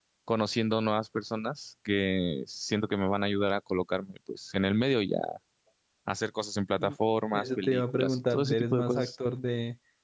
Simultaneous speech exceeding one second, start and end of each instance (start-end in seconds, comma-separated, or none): 7.3-9.1